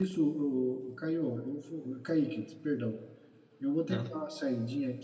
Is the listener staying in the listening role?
Yes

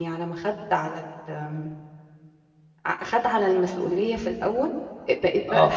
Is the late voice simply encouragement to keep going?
Yes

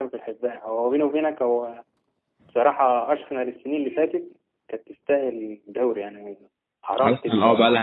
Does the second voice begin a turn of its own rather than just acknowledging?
Yes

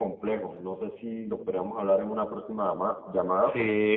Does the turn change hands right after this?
Yes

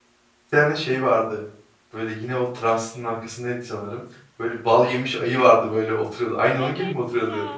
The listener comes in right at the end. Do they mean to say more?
Yes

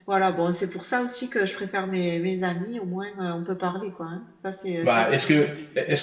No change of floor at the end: No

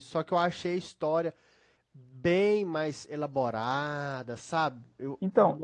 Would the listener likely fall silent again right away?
No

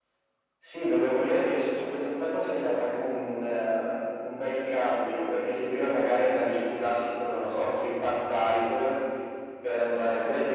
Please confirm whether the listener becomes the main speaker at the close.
No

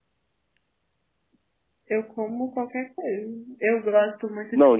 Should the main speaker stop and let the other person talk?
Yes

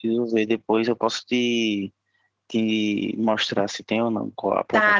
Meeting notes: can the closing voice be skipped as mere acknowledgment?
No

